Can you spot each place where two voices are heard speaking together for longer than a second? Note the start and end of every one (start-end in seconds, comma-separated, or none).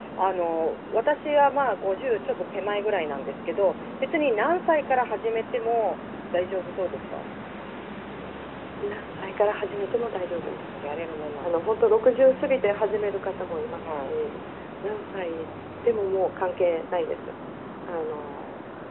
none